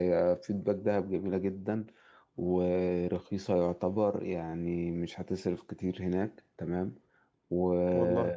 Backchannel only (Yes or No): Yes